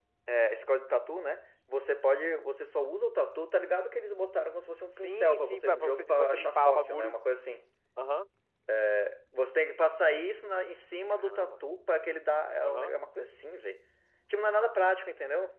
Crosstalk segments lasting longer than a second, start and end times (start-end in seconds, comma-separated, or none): 4.9-7.1